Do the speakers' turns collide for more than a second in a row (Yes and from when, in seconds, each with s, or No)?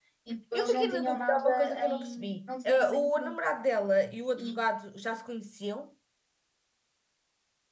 Yes, from 0.5 s